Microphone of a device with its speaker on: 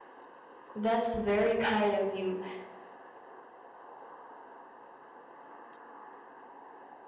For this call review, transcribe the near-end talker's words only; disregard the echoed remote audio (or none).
That's very kind of you.